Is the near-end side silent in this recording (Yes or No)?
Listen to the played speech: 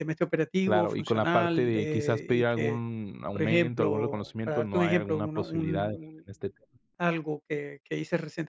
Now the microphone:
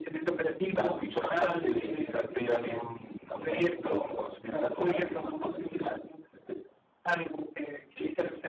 Yes